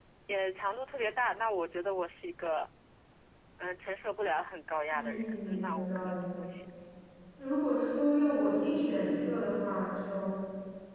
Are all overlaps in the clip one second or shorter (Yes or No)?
No